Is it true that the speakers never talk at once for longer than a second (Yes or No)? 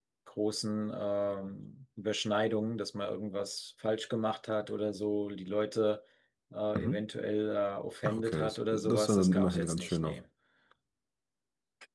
No